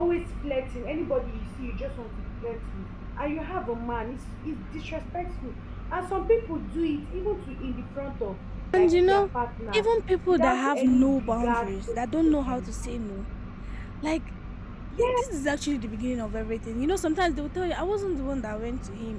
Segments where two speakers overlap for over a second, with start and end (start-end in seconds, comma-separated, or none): 10.3-12.0